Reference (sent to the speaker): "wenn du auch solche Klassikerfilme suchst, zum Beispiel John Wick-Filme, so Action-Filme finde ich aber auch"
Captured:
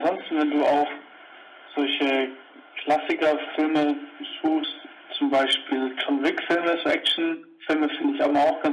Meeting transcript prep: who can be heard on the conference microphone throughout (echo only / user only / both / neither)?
echo only